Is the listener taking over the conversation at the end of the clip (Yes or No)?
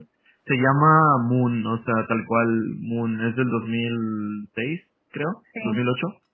No